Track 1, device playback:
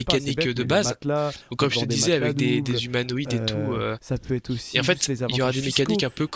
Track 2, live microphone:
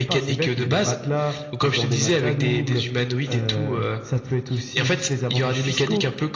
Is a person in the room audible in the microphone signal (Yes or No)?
No